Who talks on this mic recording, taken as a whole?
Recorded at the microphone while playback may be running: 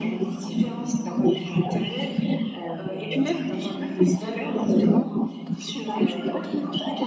echo only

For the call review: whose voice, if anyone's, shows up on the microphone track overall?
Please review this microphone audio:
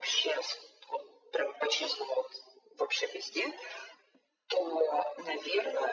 echo only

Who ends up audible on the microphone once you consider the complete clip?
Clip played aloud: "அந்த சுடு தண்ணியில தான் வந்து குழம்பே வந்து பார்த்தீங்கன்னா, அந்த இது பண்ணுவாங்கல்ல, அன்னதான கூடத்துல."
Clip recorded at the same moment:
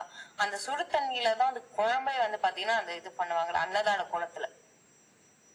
echo only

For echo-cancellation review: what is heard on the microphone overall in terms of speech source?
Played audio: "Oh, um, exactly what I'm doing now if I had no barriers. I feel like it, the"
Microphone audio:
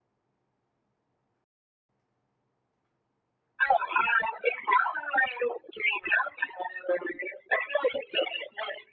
echo only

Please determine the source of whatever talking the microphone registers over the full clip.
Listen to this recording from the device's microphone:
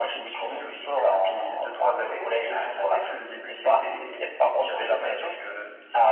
echo only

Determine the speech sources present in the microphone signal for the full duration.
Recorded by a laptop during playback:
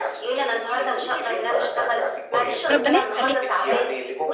both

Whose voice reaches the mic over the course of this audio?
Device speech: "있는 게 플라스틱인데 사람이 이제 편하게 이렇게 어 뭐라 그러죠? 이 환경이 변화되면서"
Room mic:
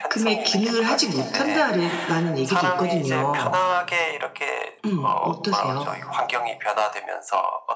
both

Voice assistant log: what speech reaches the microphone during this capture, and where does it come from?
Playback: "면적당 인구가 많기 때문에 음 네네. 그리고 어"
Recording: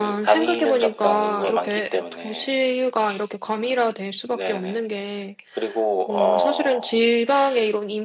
both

